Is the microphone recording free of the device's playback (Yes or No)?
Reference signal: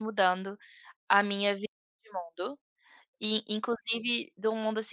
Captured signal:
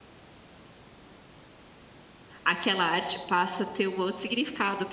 Yes